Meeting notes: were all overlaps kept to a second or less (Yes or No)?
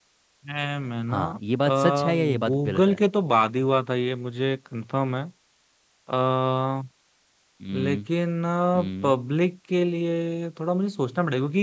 No